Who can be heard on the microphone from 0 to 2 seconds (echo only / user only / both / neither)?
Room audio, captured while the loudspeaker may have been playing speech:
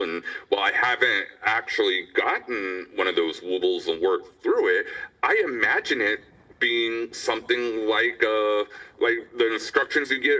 echo only